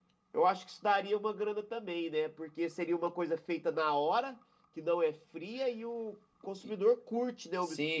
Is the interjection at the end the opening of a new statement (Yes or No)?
Yes